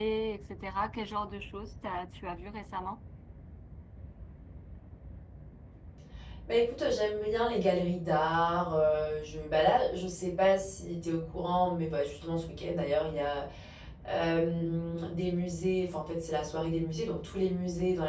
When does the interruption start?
none

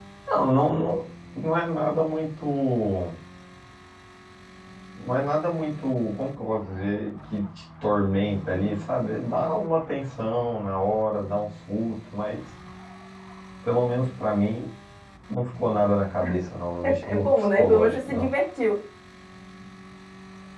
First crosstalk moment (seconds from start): 17.1 s

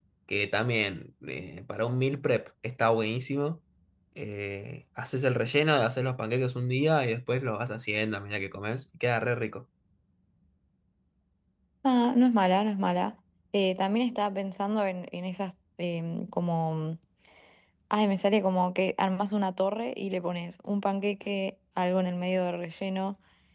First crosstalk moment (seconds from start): none

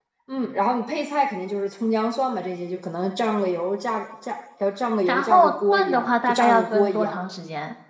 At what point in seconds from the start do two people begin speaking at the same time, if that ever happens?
5.1 s

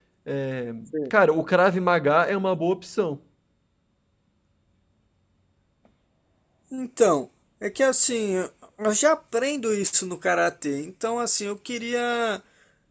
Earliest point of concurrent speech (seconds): none

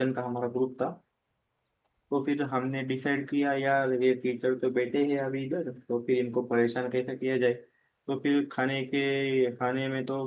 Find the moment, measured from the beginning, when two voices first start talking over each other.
none

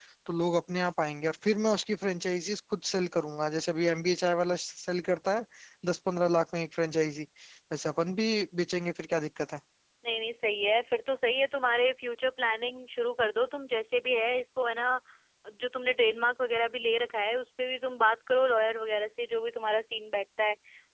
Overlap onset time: none

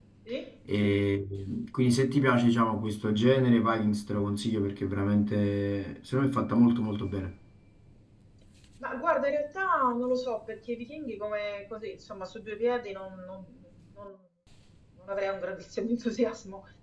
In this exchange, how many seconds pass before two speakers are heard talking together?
none

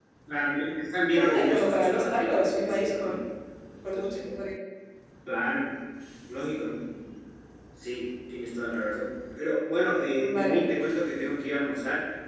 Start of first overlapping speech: 1.1 s

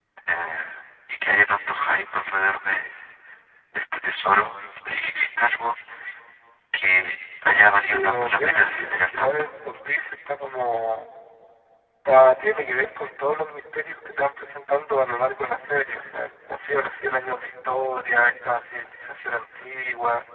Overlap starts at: 7.8 s

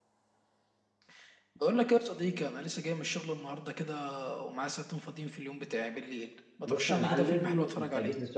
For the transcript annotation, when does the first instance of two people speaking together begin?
6.7 s

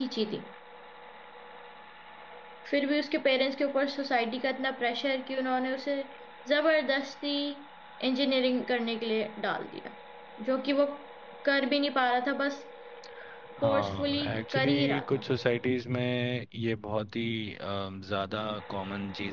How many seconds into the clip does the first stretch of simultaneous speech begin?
13.6 s

